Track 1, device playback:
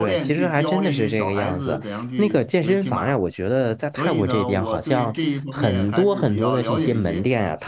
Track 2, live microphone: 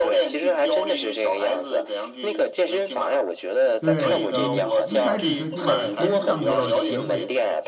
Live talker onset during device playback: 4 s

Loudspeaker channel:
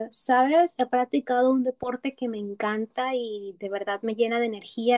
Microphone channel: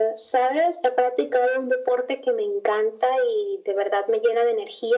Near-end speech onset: none

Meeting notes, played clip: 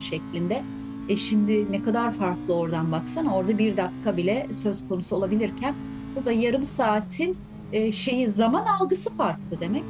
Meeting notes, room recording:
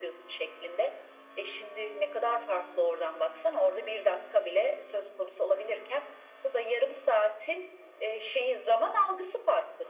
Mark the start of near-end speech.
none

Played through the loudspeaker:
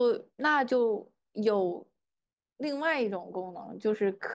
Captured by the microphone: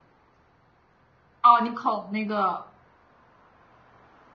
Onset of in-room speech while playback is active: 1 s

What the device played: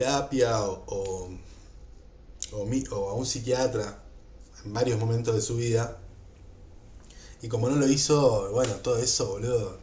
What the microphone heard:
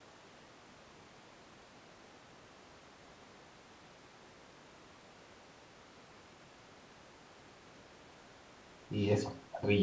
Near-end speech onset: 9 s

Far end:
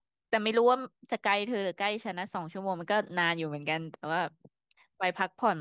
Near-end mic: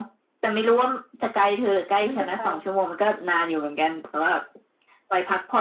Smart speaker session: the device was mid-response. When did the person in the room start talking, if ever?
2 s

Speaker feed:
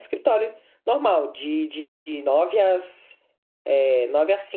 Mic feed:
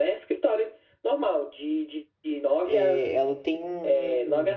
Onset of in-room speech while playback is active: 3 s

